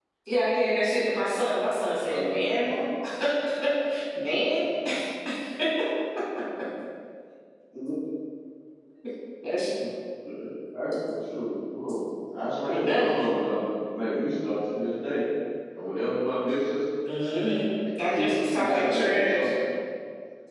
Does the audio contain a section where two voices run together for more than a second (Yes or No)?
Yes